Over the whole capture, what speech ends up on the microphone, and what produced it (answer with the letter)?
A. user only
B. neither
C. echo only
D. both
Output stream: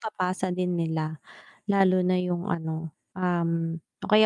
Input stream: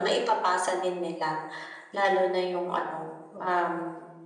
D